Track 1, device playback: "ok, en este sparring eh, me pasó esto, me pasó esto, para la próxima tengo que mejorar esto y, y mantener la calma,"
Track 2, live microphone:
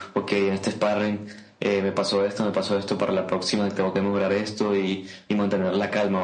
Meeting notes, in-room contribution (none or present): none